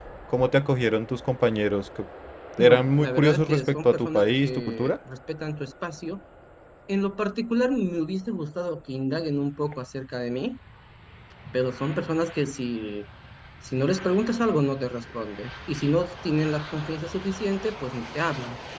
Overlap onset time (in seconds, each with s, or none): 2.6 s